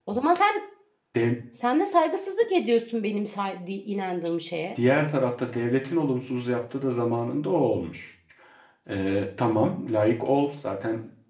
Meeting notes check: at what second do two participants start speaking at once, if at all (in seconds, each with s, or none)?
none